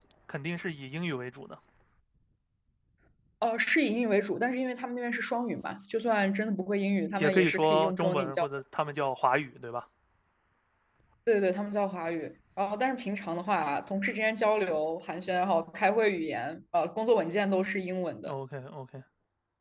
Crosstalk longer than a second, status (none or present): present